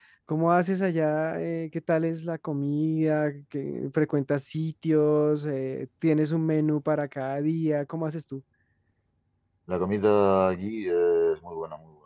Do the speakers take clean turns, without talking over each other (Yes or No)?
Yes